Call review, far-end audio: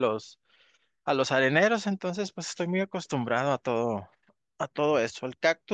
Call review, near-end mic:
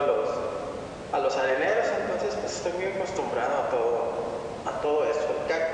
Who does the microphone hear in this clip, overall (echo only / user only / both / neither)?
echo only